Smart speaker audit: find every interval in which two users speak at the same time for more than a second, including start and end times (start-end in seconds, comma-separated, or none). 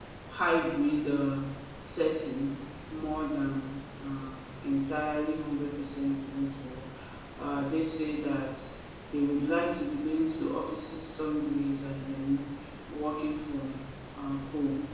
none